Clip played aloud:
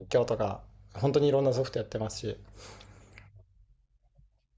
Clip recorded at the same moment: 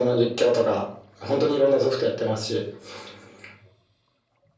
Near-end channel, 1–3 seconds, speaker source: echo only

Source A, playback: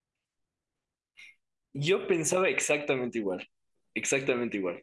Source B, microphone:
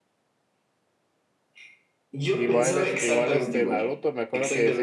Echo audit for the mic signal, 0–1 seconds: neither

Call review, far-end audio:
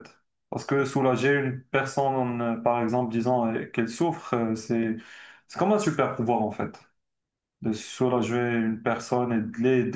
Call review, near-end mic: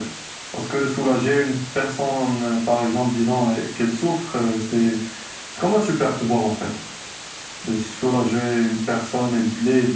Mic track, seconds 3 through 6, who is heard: echo only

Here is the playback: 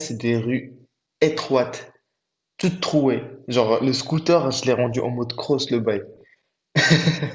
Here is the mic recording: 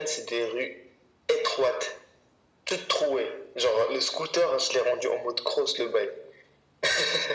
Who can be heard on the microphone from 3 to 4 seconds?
echo only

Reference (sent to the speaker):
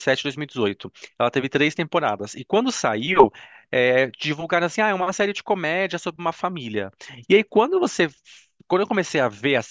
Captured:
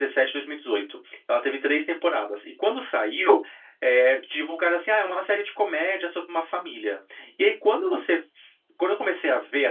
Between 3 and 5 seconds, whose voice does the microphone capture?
echo only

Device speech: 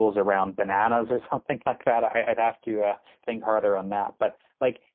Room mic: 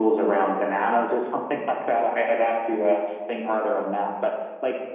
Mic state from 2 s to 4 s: echo only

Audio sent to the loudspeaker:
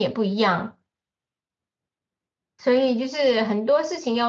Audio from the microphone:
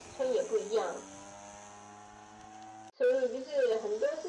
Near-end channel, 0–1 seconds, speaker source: echo only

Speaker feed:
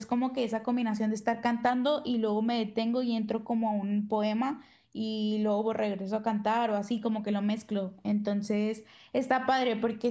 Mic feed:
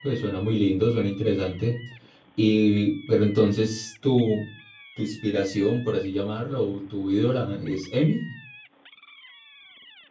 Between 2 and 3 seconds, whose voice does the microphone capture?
user only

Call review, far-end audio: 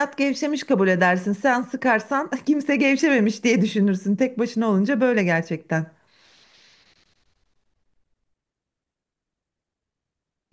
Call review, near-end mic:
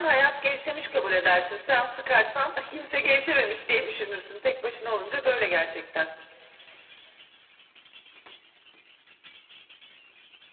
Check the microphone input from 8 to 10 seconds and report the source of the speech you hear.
neither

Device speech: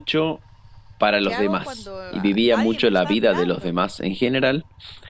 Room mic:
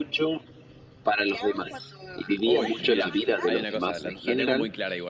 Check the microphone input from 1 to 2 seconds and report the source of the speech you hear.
echo only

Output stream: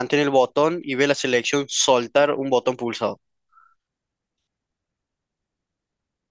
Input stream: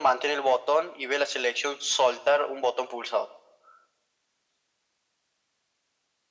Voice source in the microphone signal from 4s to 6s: neither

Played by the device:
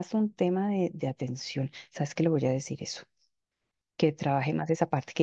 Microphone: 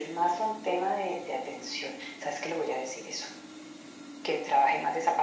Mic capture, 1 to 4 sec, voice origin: echo only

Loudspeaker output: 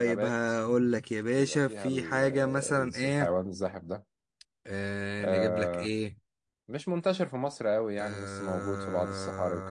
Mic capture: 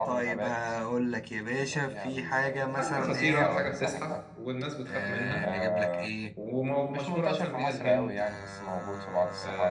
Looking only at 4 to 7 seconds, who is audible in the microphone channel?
both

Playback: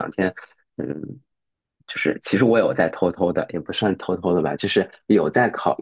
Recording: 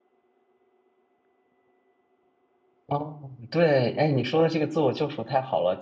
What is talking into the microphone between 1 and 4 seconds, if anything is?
user only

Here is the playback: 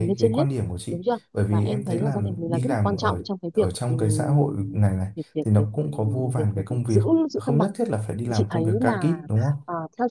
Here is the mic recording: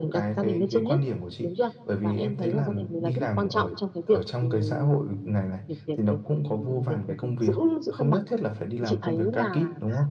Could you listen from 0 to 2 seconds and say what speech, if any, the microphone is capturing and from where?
echo only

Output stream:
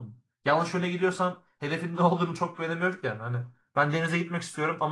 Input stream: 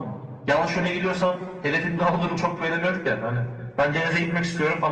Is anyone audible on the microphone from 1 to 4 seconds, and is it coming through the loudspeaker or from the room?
echo only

